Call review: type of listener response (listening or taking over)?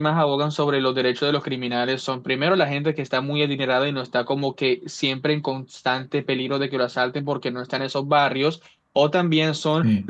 listening